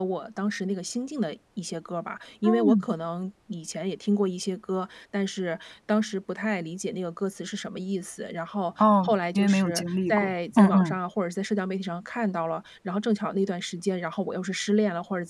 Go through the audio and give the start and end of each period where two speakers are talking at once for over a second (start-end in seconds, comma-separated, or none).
9.0-11.0